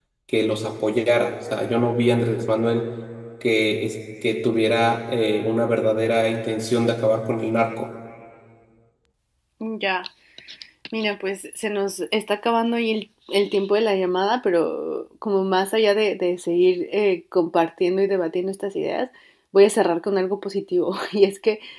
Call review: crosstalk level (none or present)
none